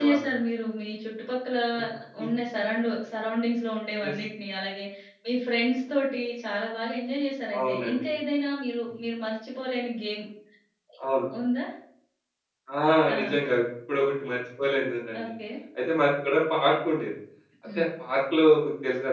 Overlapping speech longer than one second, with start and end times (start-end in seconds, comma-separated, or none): none